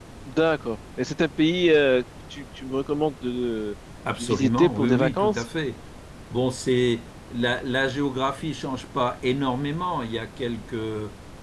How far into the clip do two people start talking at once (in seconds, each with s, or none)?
4.2 s